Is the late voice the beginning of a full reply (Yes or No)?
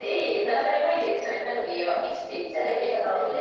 No